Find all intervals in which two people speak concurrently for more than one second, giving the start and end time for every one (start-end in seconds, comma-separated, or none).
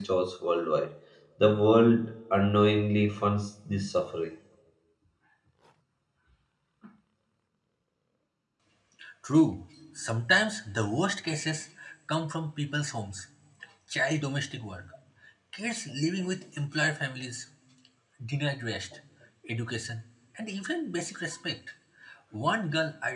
none